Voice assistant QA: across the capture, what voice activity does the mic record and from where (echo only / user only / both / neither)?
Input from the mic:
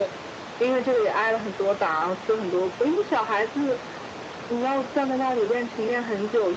echo only